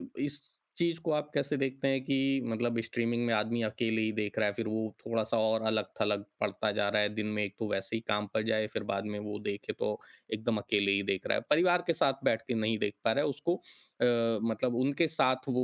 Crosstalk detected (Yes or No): No